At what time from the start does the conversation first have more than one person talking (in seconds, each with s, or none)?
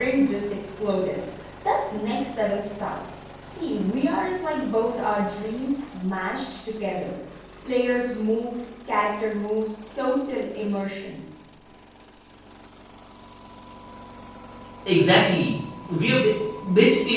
none